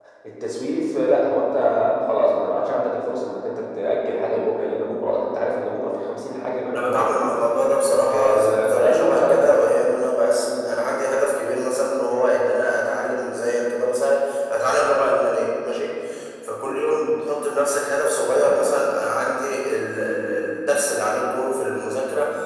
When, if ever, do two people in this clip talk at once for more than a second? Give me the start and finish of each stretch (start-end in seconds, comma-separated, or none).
8.1-9.4